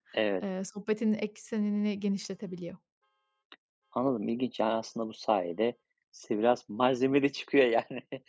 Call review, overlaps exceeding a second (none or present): none